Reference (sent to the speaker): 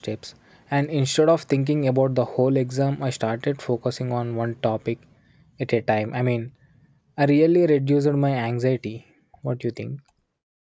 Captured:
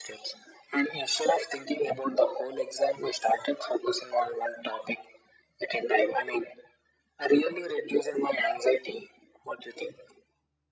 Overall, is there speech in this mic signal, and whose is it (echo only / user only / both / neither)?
echo only